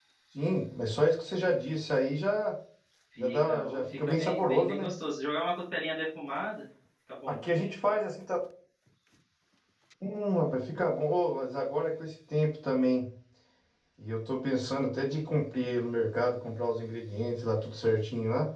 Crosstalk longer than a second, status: present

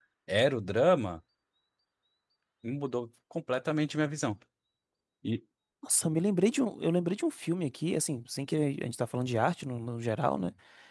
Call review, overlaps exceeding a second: none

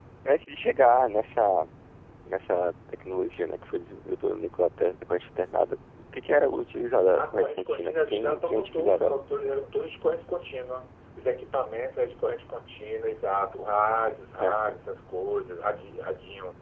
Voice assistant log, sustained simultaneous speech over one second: present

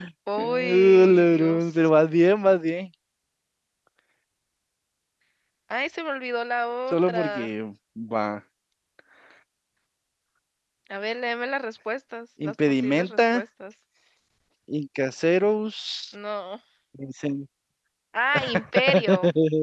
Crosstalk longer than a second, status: present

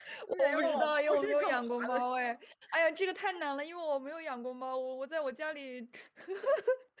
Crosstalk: present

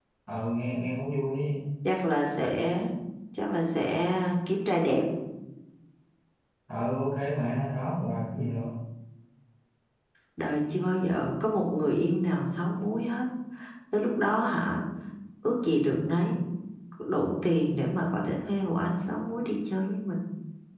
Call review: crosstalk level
none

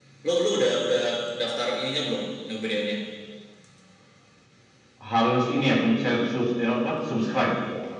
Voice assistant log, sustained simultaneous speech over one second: none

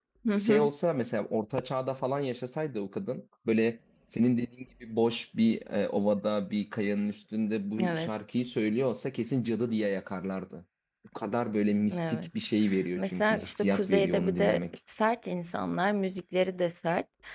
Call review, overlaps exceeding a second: present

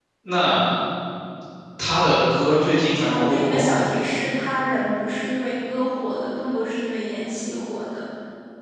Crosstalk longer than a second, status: present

